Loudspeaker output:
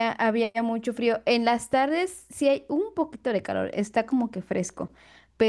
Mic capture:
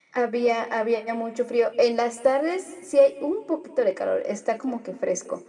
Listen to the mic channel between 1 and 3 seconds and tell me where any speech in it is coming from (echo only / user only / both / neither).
echo only